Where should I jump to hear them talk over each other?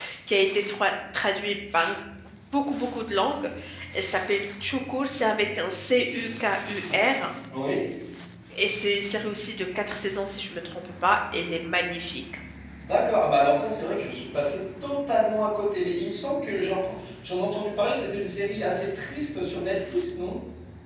none

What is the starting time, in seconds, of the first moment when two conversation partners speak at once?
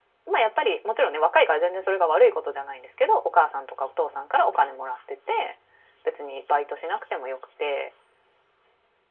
none

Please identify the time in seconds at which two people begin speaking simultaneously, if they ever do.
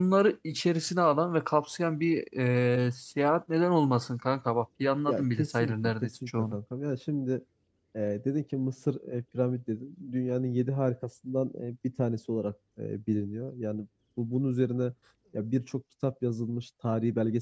5.1 s

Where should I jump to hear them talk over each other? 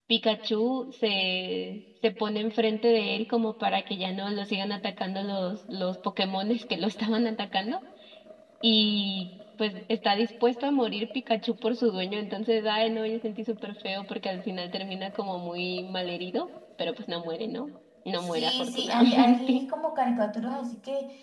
18.4 s

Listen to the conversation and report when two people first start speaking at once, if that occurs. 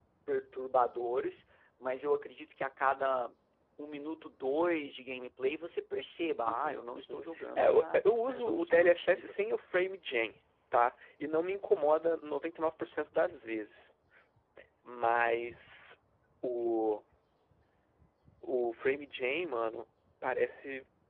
6.5 s

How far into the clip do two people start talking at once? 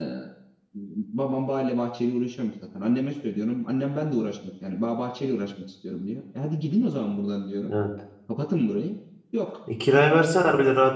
none

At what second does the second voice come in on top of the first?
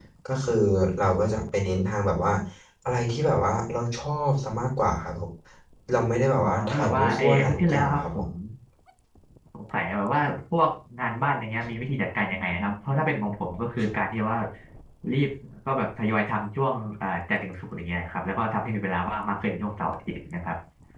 6.4 s

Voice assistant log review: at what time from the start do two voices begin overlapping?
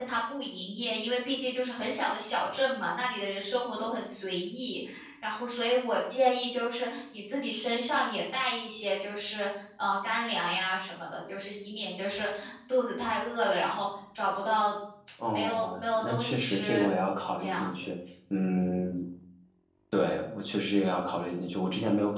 15.3 s

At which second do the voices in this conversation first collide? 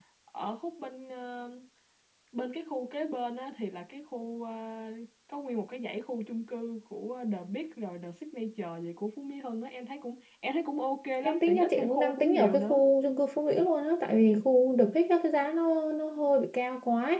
11.2 s

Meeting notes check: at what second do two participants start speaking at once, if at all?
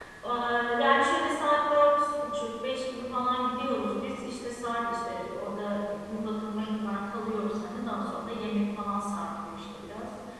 none

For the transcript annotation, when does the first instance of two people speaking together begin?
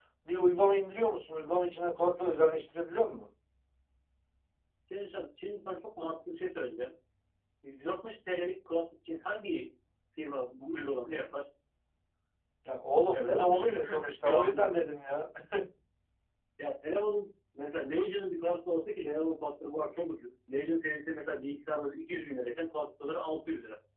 13.1 s

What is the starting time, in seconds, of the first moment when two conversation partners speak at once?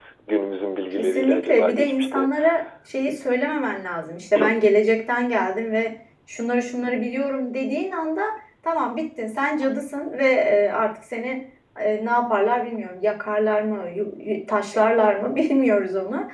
0.9 s

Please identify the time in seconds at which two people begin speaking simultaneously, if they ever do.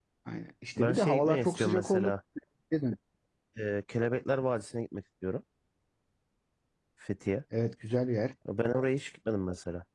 0.8 s

